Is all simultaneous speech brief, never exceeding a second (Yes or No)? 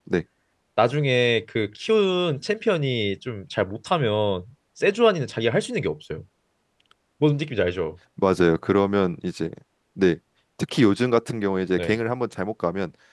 Yes